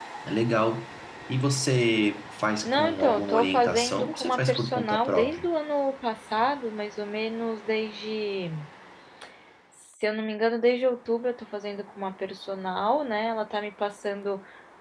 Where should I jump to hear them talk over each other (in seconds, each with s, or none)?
2.6 s